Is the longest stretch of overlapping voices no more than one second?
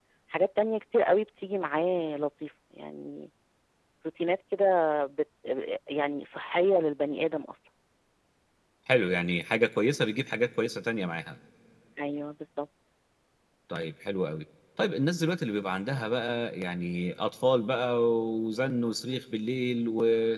Yes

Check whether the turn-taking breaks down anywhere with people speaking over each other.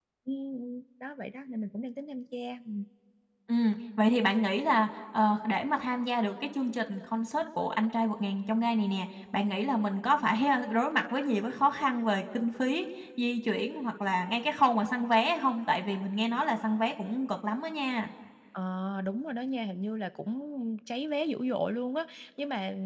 No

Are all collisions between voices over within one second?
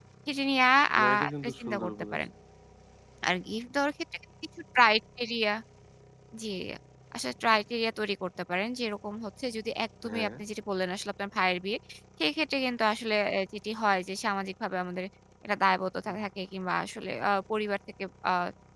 No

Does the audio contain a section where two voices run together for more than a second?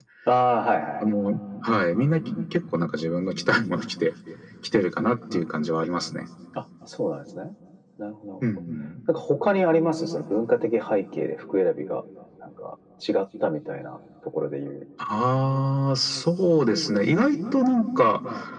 No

